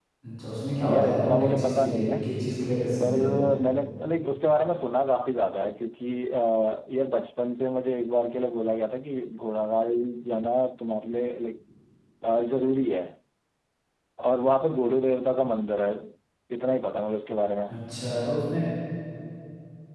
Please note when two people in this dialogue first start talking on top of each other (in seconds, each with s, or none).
0.9 s